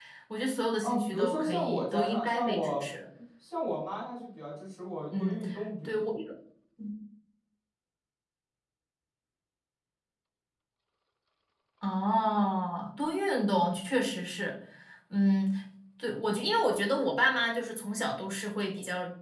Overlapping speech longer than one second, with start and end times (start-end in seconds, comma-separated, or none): 0.8-2.9